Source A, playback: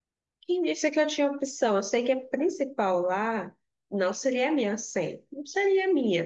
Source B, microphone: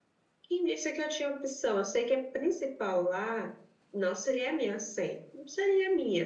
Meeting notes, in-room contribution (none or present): none